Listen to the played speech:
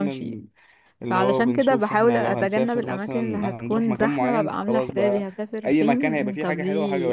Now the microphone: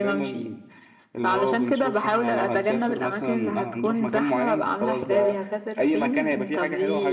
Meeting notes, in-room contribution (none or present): none